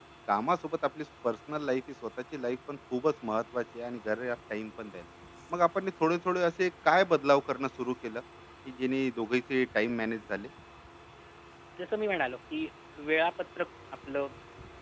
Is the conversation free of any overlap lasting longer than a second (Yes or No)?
Yes